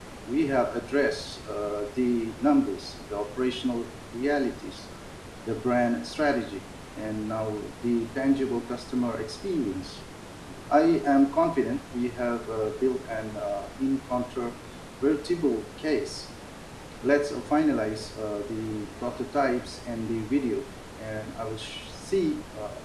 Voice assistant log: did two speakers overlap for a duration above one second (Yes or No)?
No